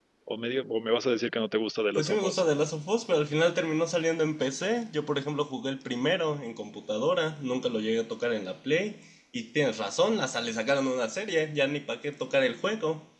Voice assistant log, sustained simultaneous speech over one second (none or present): none